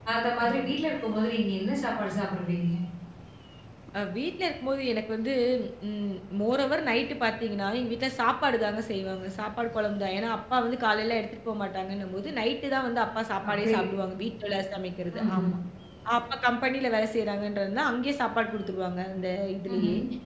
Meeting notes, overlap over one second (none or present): none